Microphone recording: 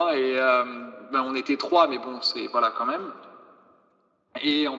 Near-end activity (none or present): none